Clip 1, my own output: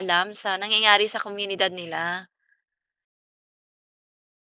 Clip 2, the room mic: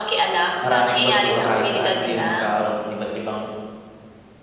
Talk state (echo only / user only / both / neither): both